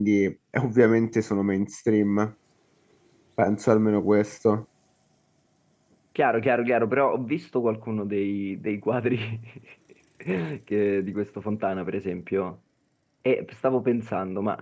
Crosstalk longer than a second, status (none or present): none